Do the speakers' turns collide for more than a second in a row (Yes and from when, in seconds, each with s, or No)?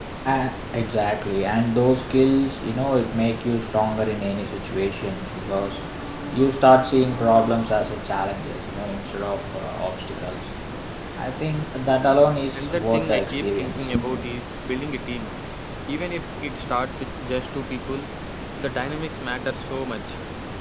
Yes, from 12.5 s